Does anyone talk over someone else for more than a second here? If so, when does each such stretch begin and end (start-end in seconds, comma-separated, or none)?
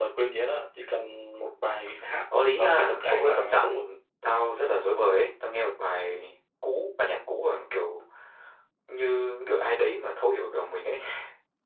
2.6-3.8